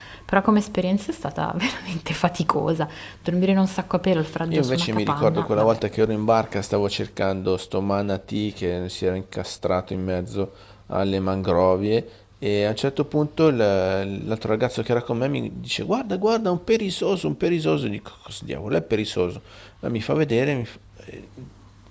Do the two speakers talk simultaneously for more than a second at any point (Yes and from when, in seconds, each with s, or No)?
Yes, from 4.5 s